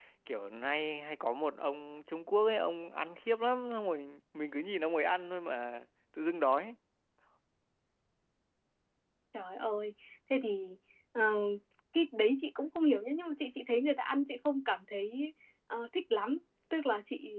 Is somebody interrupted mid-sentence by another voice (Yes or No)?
No